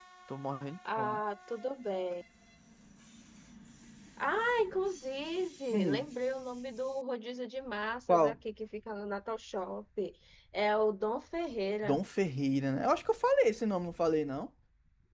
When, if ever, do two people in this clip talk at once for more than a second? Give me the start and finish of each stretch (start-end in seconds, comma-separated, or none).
none